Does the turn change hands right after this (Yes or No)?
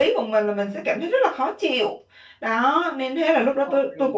No